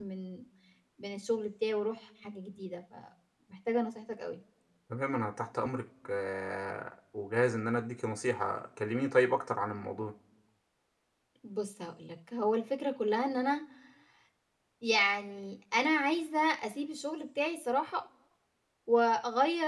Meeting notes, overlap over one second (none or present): none